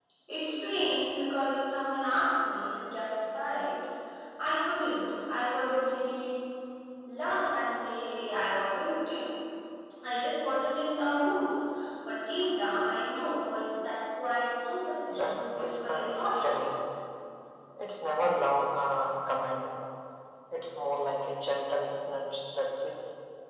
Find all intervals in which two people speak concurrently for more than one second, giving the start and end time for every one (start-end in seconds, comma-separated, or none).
15.1-16.6